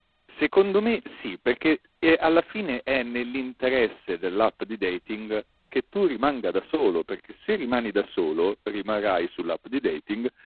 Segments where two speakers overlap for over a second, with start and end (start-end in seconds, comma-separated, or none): none